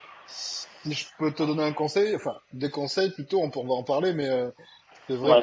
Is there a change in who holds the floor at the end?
No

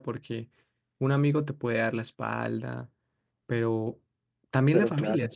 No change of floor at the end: Yes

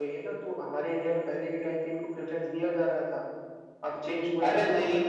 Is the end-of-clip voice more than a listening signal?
Yes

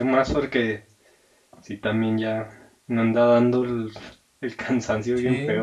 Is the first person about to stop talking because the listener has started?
Yes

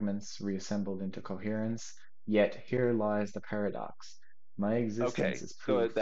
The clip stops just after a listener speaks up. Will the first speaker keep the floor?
No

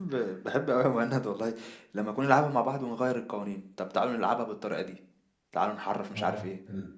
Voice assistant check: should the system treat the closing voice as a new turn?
Yes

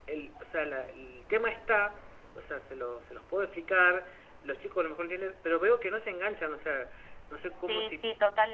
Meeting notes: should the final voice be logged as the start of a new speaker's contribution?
Yes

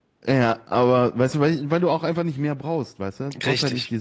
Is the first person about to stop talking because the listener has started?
No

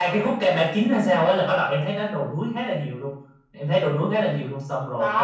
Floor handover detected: Yes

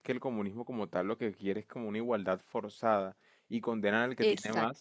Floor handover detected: No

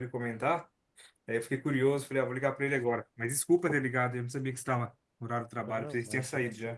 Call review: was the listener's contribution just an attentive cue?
No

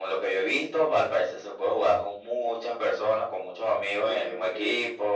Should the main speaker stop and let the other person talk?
Yes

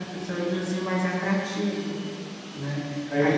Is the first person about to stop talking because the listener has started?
No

